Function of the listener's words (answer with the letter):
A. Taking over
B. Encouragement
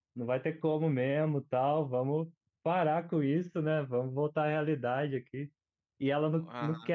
B